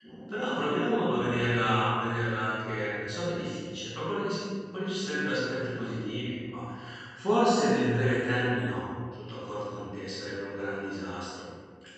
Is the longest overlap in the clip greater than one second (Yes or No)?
No